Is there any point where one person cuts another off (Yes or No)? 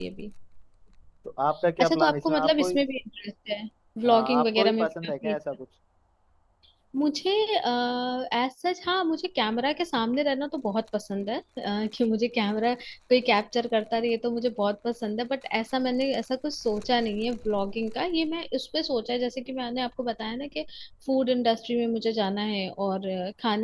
Yes